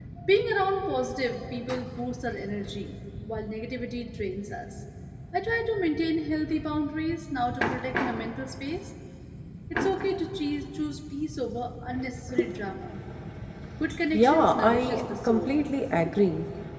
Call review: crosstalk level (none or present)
present